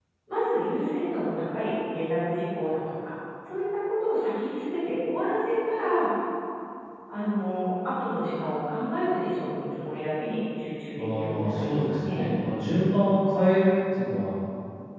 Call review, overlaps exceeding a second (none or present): present